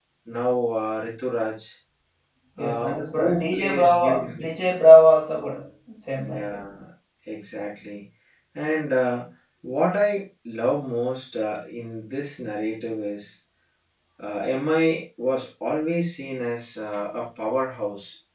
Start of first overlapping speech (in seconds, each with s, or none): 2.6 s